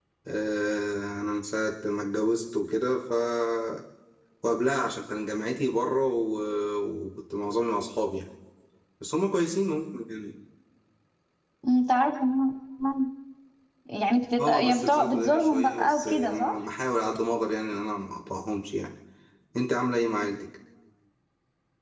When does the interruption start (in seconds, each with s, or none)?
14.4 s